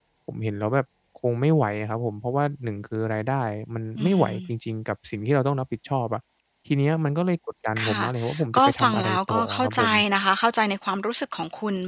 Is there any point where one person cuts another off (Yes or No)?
Yes